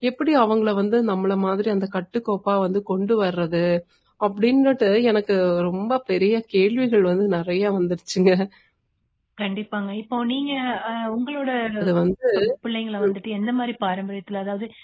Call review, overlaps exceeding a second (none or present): none